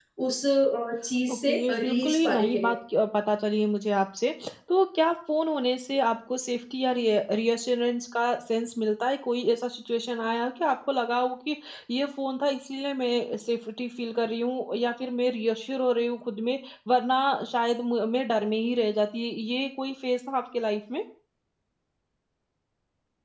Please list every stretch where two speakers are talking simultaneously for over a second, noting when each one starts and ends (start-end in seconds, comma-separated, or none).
1.3-2.7